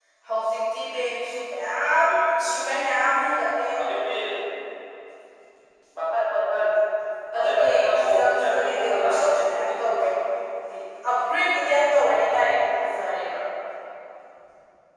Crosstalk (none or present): present